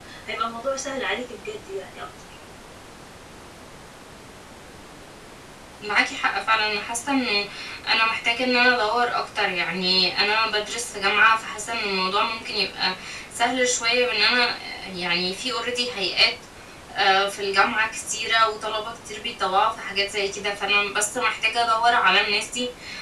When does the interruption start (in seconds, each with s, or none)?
none